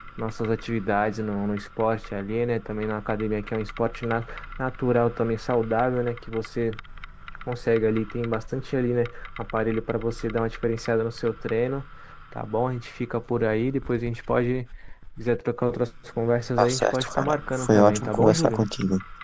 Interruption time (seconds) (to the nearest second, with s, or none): 17 s